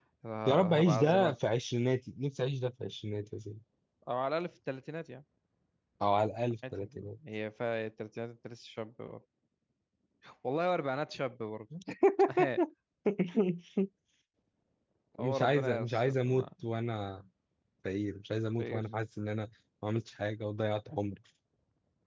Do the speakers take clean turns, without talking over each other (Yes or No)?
No